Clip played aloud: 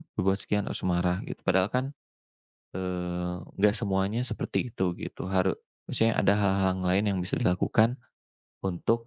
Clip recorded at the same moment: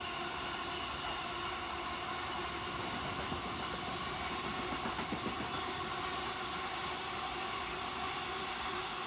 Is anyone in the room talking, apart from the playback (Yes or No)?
No